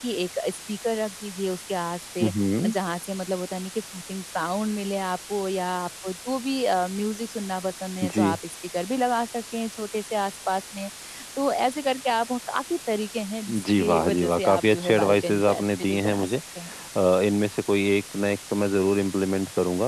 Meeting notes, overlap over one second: present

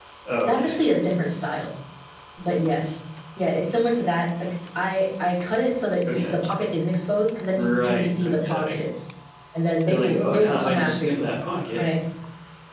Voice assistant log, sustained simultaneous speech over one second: present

